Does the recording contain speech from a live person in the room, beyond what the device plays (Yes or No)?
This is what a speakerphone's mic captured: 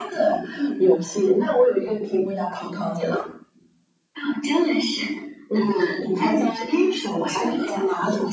No